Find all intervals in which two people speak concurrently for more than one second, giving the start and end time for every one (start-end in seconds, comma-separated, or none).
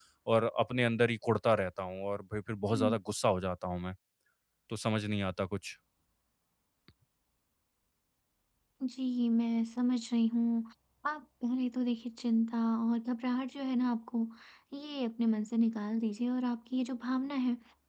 none